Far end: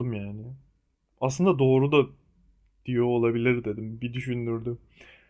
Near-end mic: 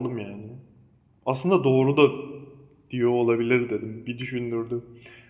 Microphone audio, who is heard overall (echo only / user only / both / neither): echo only